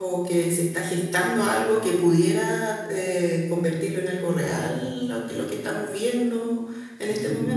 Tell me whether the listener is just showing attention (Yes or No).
No